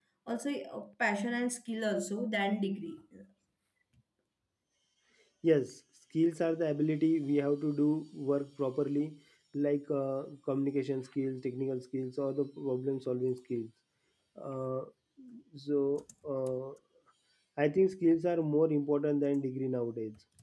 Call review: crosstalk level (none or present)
none